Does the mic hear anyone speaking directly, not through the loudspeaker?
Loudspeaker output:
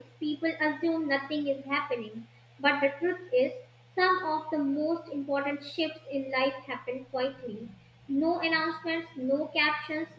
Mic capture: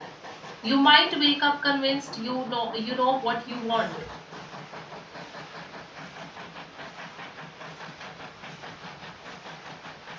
Yes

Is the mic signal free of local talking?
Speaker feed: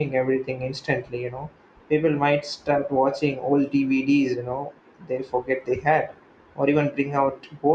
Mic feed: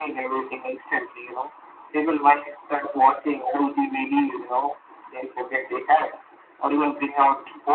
Yes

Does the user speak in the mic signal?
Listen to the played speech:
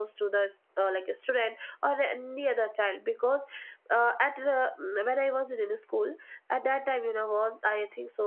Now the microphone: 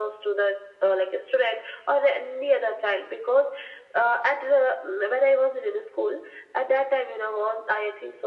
No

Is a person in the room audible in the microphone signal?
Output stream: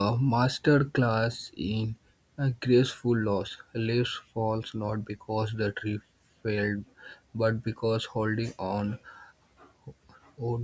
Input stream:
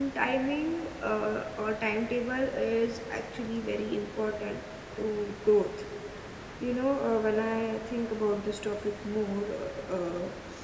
Yes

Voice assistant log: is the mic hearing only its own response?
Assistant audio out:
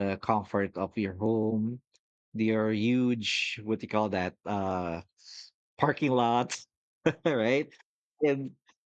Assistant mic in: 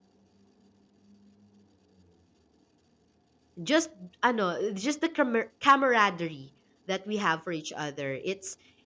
No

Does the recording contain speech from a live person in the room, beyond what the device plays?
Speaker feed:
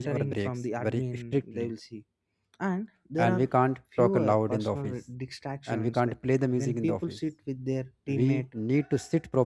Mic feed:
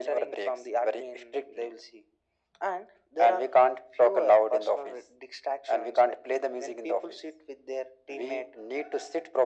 No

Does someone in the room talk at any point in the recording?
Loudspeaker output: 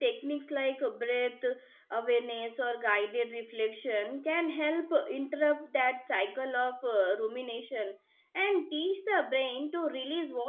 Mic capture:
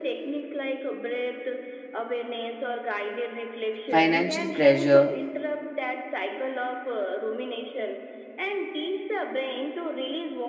Yes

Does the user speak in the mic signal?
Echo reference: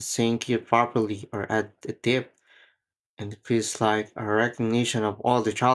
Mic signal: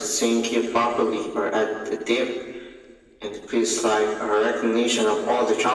No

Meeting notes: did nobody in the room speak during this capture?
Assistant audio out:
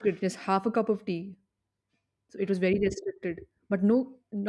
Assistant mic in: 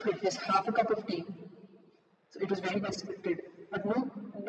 Yes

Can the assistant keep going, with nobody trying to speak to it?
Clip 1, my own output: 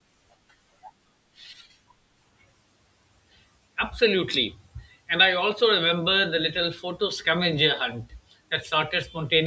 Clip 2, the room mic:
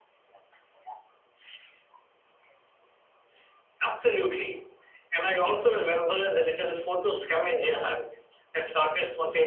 Yes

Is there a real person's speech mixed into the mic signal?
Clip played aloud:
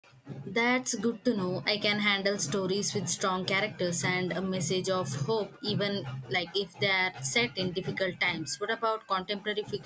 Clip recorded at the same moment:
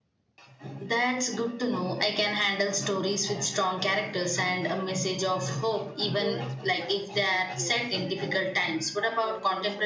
Yes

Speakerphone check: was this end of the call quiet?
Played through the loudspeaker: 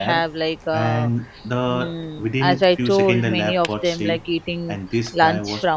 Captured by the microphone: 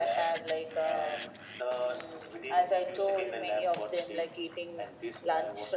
Yes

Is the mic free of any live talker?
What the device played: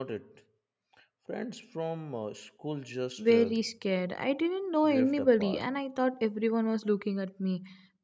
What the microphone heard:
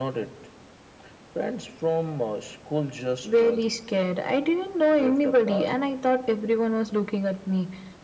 Yes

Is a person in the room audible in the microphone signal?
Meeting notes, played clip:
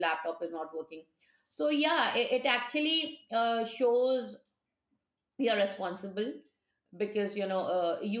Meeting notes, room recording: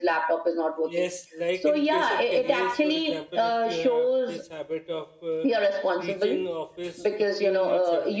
Yes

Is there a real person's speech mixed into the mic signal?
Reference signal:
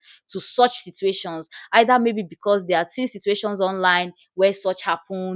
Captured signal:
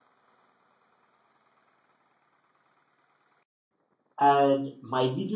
Yes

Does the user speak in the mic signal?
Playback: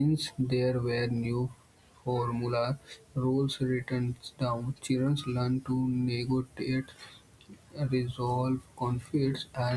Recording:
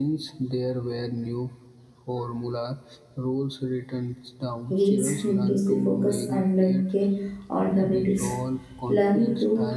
Yes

